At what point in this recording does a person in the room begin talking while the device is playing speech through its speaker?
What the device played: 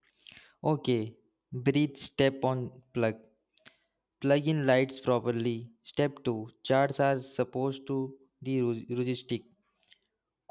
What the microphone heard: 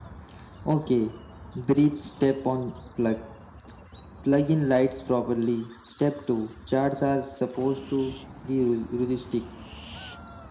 none

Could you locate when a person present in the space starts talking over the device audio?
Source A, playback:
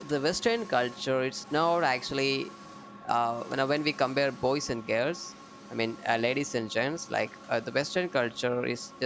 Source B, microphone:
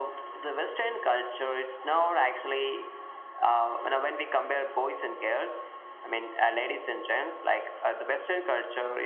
none

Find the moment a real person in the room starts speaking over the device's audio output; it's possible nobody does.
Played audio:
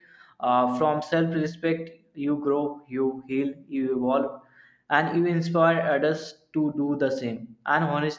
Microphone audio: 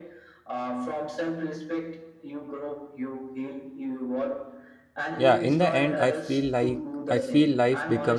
5 s

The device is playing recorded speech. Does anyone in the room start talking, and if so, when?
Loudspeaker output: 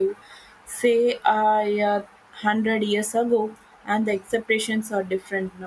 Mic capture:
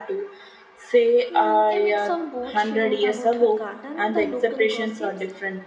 1 s

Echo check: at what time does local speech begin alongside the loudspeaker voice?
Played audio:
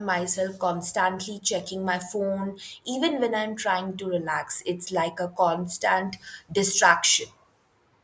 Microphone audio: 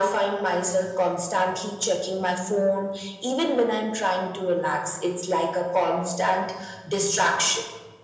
none

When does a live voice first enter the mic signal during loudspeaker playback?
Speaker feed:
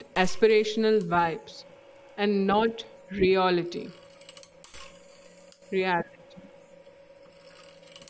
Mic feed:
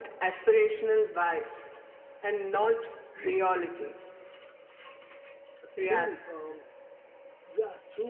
6 s

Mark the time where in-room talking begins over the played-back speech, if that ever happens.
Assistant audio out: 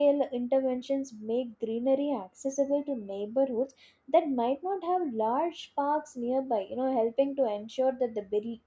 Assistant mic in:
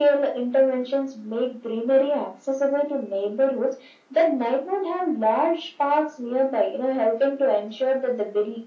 none

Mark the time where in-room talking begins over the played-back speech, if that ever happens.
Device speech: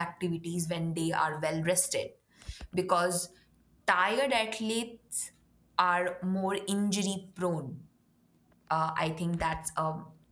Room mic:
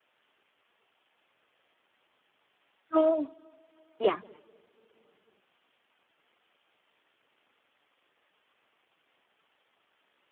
3 s

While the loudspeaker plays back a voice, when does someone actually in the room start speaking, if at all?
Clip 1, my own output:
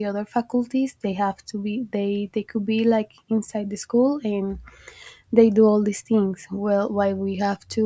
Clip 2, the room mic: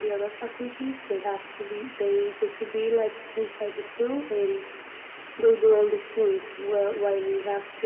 none

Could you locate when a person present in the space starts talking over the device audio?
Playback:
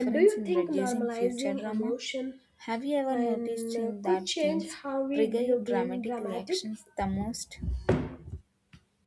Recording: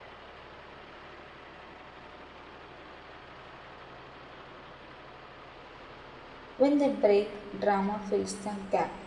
7 s

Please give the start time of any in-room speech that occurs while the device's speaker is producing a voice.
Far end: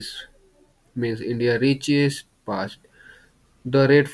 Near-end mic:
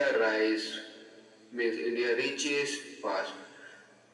none

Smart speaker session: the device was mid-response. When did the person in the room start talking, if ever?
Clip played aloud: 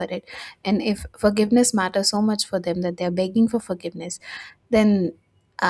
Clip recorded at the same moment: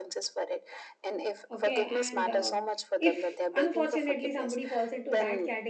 2 s

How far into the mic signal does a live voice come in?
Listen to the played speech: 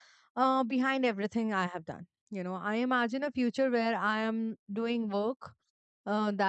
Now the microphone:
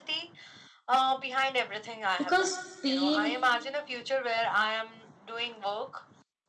2 s

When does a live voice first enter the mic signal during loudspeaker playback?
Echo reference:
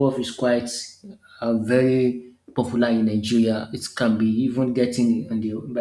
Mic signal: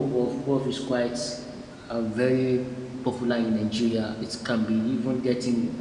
none

